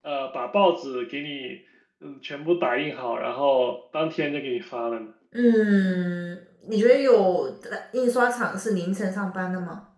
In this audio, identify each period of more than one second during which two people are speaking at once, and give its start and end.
none

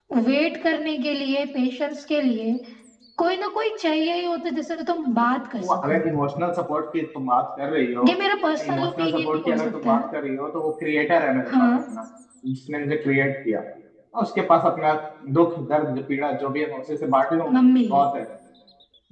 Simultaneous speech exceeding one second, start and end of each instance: 8.7-10.0

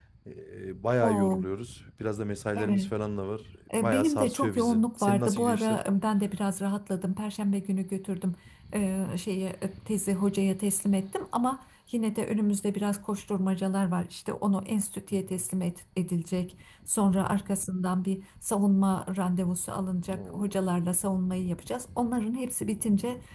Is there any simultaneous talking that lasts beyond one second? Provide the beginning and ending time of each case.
3.7-5.8

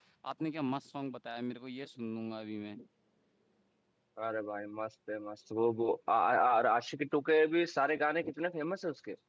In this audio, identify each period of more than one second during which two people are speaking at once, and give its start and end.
none

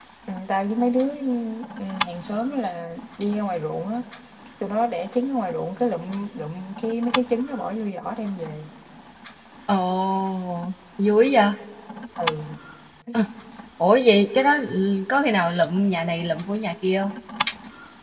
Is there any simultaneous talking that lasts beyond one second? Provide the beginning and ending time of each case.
none

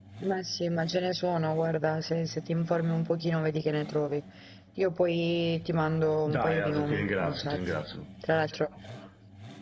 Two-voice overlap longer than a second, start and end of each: 6.3-7.6

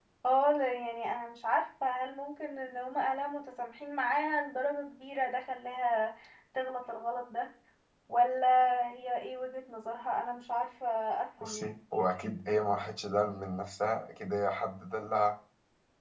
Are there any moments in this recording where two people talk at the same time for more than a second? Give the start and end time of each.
none

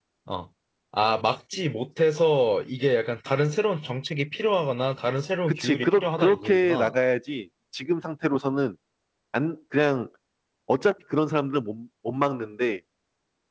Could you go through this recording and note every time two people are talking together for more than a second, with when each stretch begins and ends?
5.5-6.9

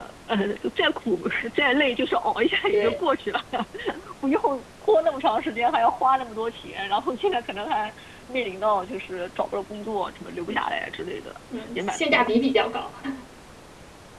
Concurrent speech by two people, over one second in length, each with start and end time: none

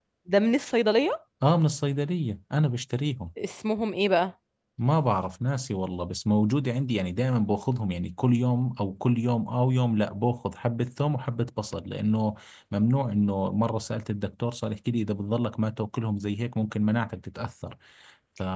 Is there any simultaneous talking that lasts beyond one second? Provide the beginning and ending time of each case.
none

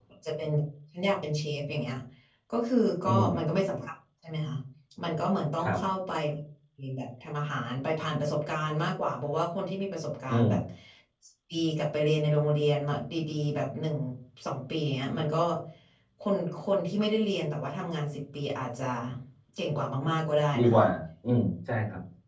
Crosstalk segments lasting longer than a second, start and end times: none

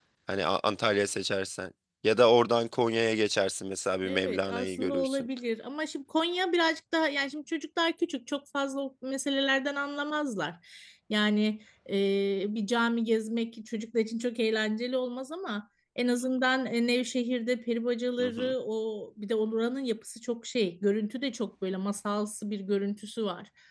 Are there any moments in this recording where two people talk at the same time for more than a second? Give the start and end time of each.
4.0-5.3

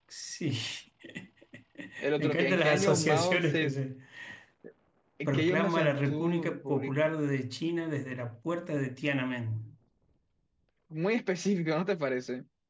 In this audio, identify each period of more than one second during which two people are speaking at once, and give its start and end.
2.2-3.7, 5.3-6.9

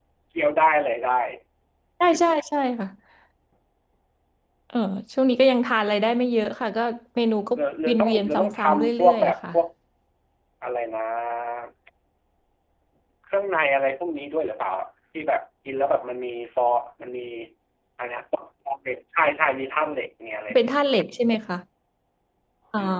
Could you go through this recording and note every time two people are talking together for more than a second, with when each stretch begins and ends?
7.5-9.3

